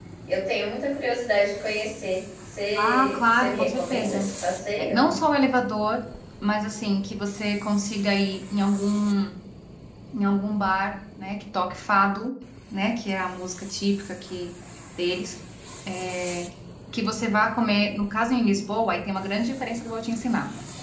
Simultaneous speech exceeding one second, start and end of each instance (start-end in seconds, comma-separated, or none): 2.8-4.3